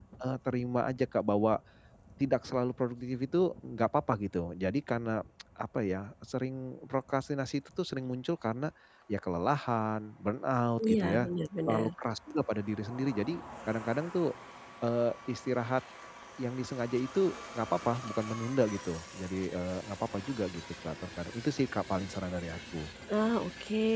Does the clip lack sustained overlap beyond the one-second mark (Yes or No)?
Yes